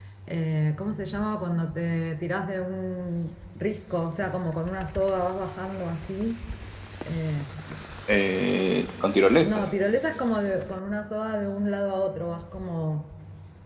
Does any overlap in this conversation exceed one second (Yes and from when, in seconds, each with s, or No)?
No